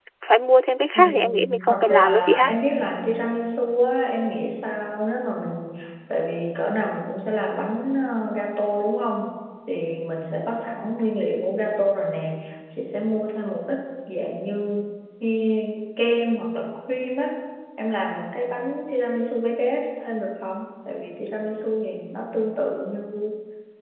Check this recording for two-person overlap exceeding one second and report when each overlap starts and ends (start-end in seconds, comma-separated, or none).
0.9-2.5